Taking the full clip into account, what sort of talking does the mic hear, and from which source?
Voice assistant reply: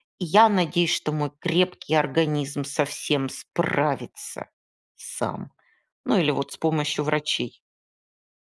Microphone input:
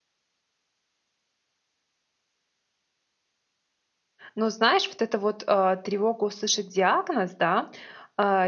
user only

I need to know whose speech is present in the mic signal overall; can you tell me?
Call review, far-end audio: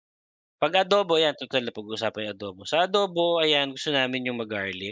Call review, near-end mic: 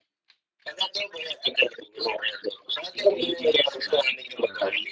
both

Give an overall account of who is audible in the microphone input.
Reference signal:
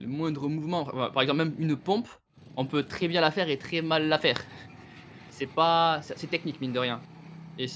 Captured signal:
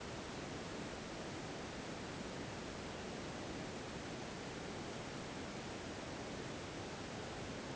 neither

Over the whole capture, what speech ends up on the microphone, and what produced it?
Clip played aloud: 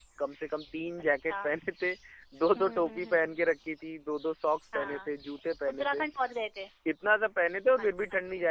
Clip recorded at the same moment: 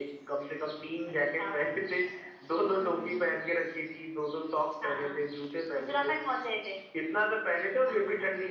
echo only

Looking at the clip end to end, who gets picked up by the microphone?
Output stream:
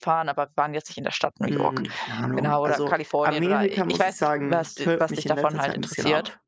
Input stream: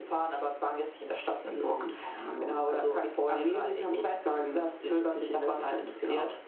echo only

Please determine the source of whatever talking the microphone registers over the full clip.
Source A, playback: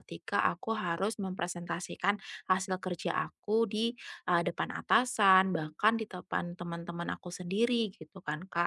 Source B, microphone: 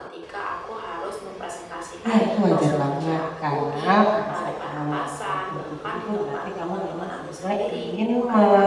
both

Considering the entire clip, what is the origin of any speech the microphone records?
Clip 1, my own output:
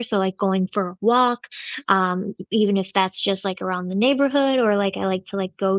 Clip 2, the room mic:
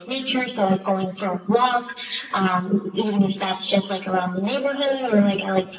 echo only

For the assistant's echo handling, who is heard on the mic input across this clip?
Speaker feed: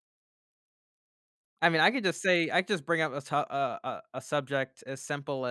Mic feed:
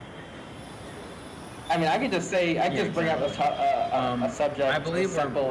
both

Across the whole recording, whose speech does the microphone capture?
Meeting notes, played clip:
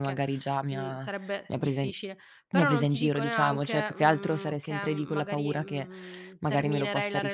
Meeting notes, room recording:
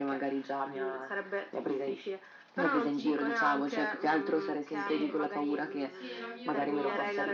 both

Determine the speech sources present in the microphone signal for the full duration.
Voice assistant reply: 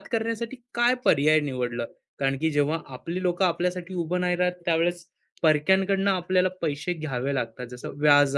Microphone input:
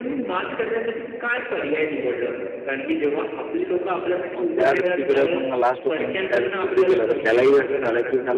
both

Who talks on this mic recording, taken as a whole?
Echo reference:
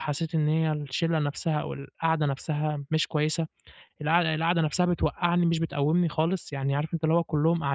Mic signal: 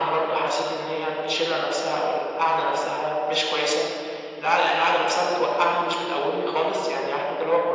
echo only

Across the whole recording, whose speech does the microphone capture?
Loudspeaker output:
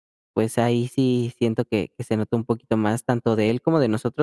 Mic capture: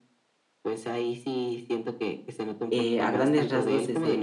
both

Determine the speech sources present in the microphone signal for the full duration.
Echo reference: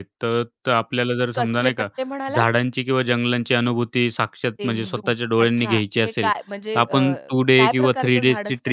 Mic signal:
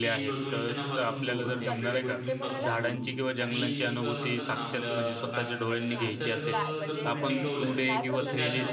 both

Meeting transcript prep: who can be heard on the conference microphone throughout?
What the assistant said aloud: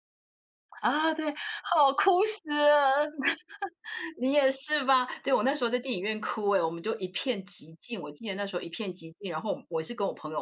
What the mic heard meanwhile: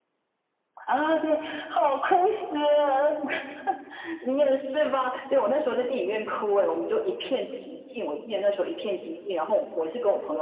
echo only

